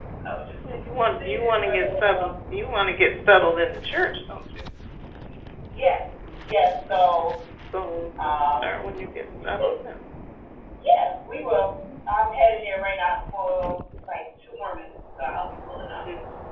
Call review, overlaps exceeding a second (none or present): present